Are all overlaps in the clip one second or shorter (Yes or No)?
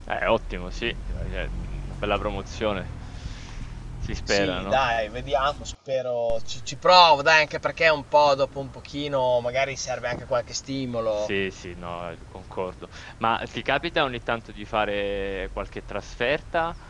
Yes